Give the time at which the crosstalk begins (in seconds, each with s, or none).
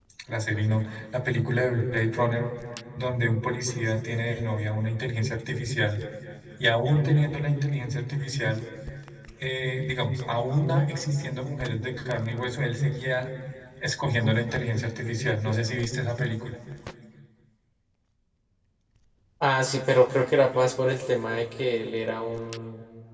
none